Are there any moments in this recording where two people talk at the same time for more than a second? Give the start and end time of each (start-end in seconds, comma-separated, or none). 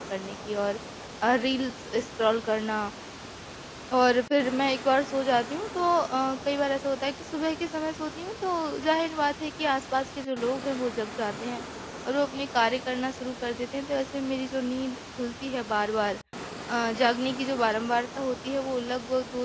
none